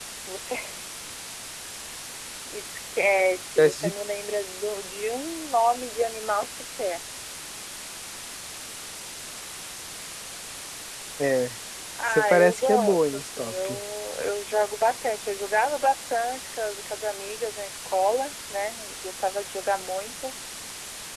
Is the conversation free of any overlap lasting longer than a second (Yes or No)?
No